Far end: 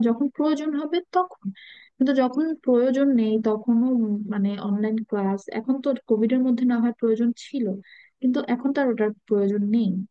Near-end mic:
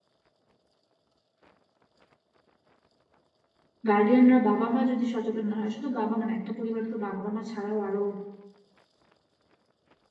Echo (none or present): none